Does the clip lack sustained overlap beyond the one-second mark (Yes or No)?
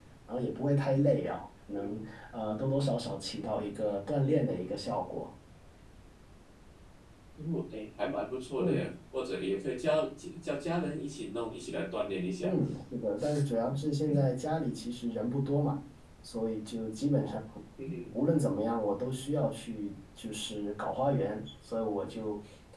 Yes